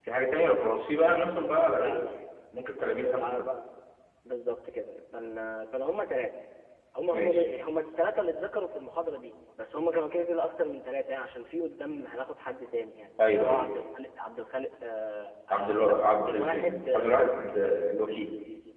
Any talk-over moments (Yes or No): Yes